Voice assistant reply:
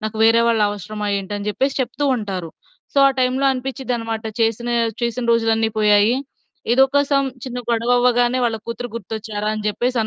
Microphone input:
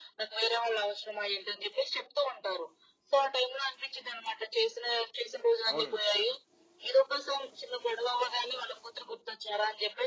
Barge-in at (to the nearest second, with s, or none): 6 s